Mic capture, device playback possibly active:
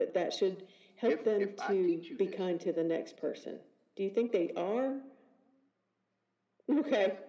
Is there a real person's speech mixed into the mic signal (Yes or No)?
Yes